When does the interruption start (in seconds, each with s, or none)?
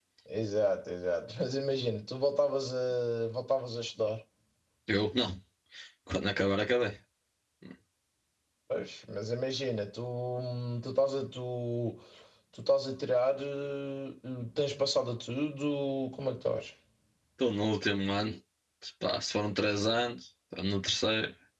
none